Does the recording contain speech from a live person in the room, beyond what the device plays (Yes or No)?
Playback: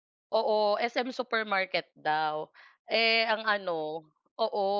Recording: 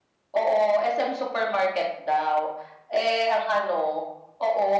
No